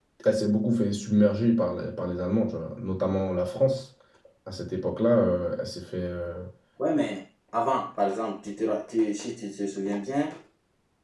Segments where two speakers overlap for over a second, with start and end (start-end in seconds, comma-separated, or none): none